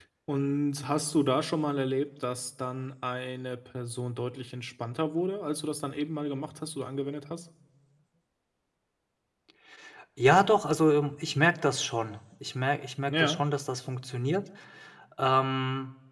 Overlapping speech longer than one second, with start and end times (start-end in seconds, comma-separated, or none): none